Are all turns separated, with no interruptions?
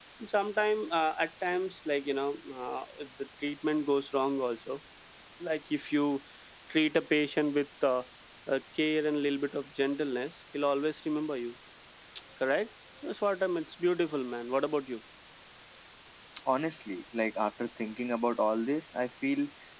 Yes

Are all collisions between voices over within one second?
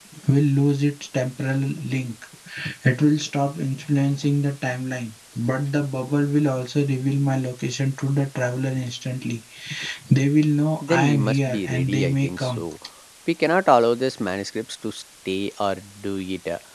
No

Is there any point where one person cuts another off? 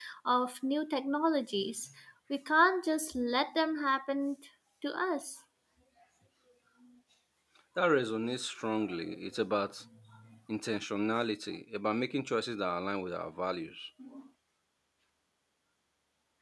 No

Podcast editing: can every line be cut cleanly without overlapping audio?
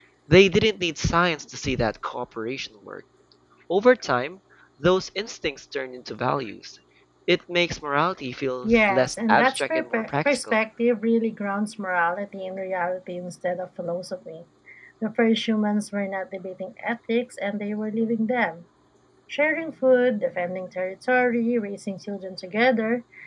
No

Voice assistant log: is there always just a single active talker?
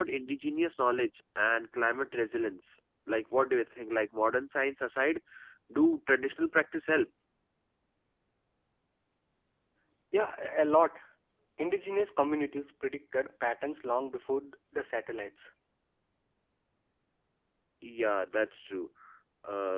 Yes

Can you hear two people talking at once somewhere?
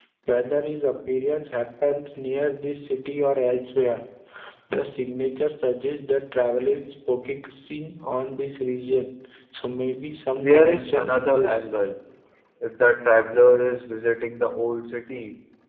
Yes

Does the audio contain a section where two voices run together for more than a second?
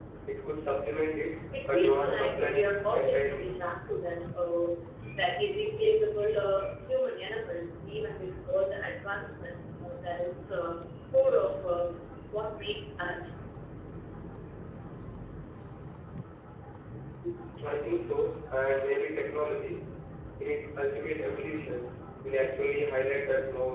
Yes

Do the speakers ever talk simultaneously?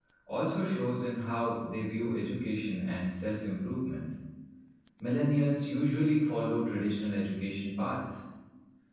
No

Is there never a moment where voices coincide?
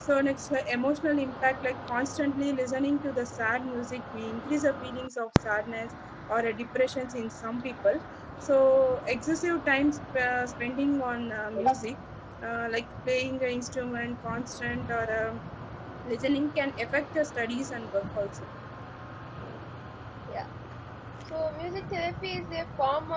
Yes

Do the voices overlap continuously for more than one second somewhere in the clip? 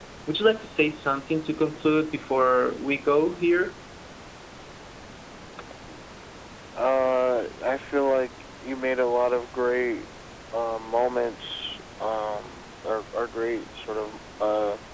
No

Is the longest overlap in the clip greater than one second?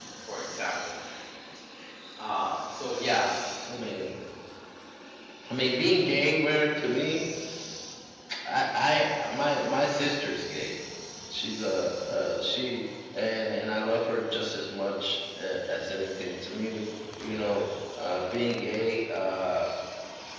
No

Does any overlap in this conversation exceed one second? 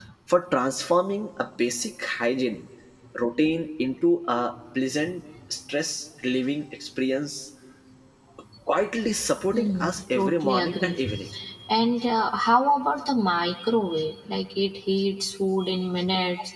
Yes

